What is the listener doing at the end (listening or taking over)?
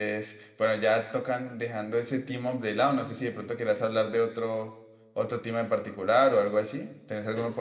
taking over